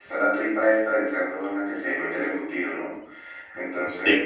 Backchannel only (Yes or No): Yes